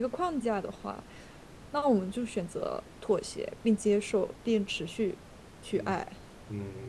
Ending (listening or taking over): taking over